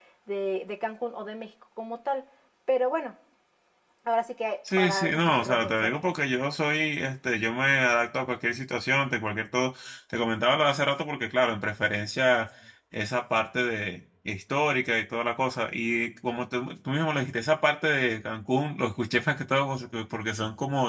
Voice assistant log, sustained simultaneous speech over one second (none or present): present